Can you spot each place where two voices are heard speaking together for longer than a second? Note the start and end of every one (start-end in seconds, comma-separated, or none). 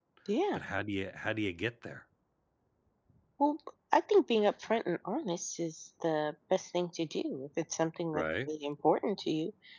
none